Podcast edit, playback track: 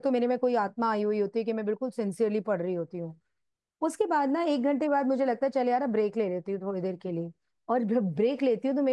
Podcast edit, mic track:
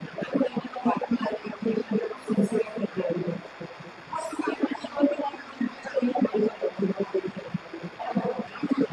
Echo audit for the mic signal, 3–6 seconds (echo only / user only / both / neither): echo only